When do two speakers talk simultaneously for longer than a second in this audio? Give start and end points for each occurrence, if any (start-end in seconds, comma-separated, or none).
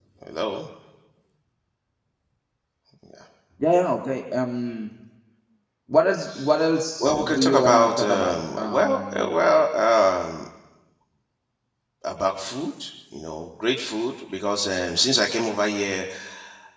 7.0-9.6